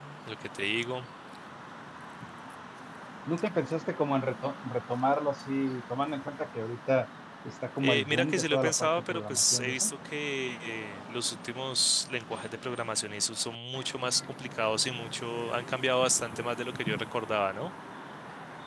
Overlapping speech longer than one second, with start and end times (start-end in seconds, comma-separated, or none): 7.8-9.9